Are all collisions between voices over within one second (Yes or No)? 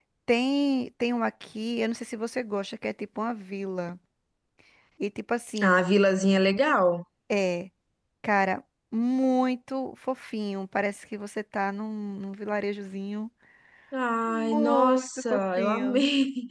No